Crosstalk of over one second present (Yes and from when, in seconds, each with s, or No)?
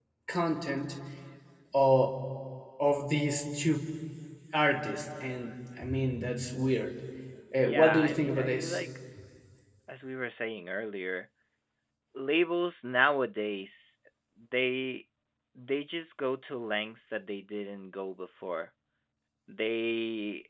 Yes, from 7.6 s